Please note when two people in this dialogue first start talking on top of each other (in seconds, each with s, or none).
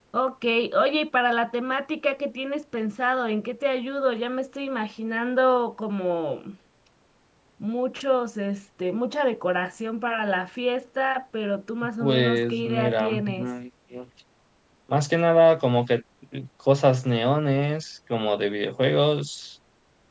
12.0 s